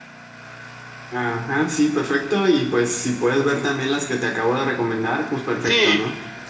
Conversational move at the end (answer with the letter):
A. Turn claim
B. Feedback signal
A